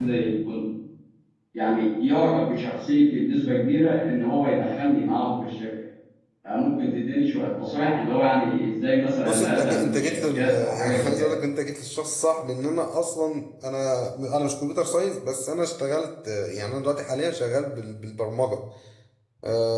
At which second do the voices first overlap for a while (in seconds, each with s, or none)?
9.2 s